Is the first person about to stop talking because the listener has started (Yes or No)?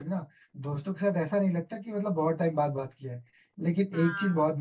No